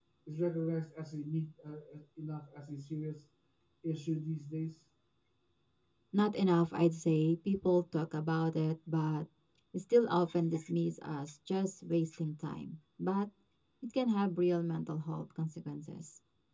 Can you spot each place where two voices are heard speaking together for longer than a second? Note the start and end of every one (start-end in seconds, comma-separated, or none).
none